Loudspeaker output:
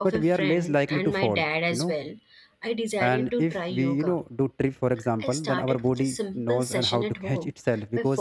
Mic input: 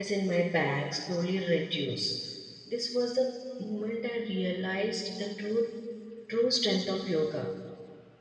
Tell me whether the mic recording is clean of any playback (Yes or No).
Yes